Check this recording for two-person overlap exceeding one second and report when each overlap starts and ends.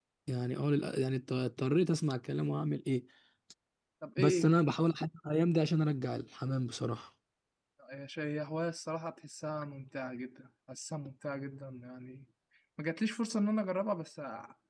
none

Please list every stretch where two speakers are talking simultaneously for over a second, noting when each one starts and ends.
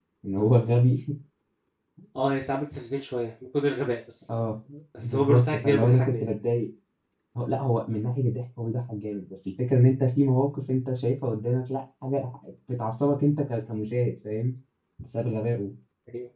5.0-6.3

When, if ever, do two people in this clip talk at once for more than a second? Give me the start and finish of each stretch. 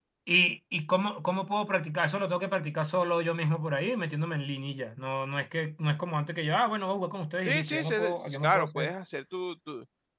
7.5-8.9

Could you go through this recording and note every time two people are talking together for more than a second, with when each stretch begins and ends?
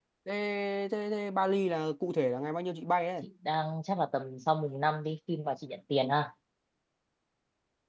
none

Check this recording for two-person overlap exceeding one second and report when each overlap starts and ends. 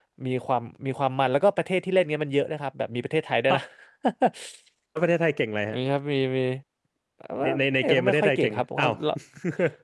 7.4-8.9

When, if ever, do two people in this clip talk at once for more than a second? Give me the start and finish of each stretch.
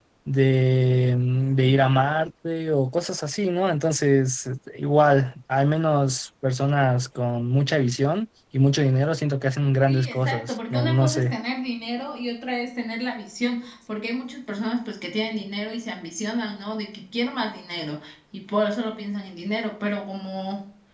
9.9-11.4

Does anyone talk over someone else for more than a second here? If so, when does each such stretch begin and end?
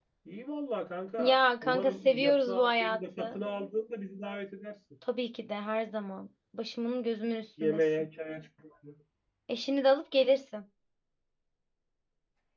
1.2-3.4

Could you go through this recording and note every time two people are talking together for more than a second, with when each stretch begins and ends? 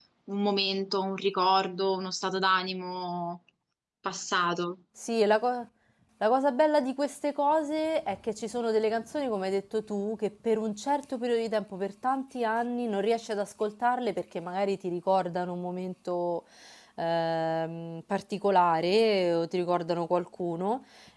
none

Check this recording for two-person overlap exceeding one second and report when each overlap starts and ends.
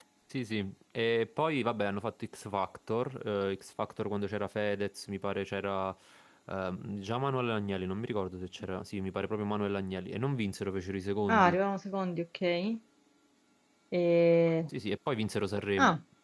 none

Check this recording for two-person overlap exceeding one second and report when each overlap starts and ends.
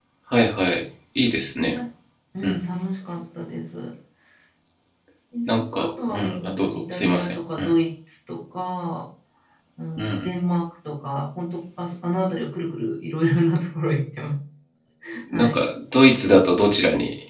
5.5-7.7

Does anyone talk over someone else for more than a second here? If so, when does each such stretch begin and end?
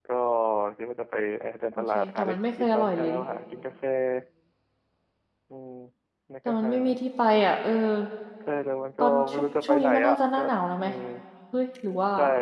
1.7-3.2, 9.0-10.4

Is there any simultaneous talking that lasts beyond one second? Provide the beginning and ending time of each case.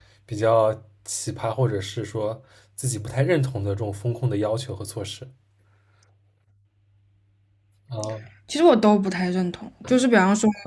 none

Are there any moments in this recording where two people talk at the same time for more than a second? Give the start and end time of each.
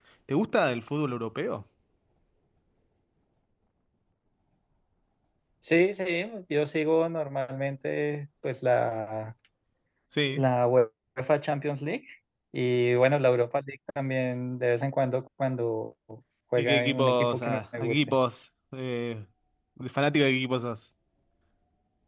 16.6-18.1

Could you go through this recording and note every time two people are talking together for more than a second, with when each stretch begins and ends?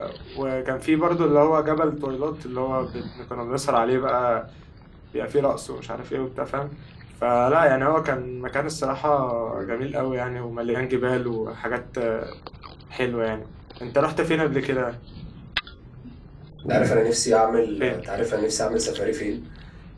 none

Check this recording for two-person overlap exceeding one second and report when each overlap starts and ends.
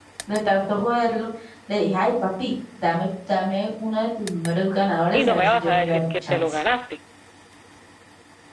5.1-6.6

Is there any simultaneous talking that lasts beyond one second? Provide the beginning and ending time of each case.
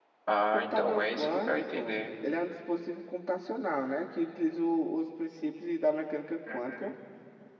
0.5-1.9

